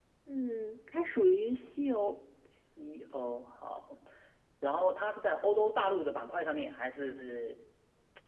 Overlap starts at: none

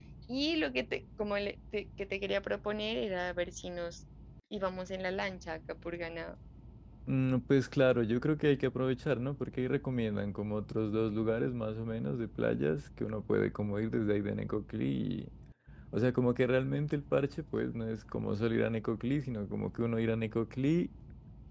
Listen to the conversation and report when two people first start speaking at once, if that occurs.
none

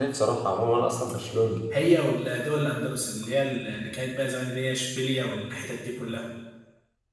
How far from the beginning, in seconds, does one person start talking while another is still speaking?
none

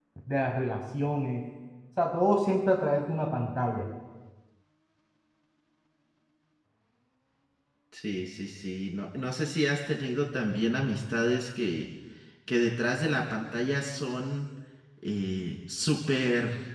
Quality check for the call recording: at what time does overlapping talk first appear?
none

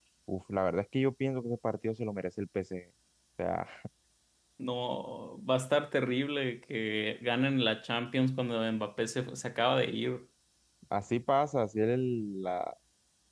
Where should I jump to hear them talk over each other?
none

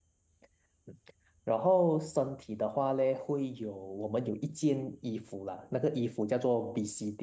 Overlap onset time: none

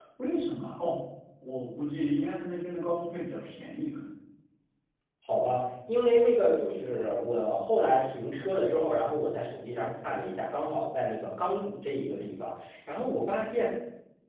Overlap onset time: none

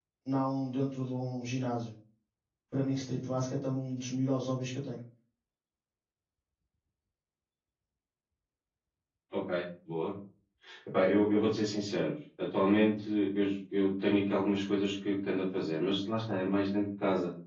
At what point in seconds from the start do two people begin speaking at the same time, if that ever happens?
none

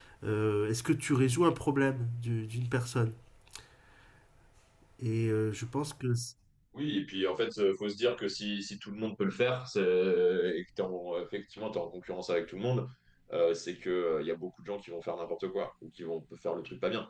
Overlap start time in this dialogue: none

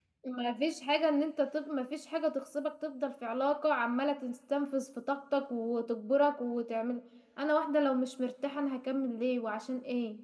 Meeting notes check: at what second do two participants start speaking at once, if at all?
none

